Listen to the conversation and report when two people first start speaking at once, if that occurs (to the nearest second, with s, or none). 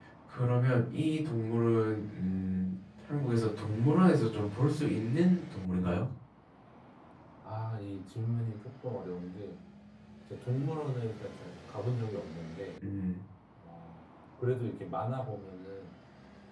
none